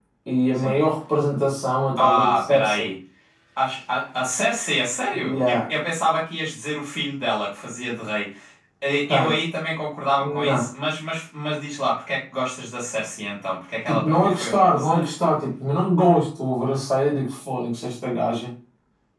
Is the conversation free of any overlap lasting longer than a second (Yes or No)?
No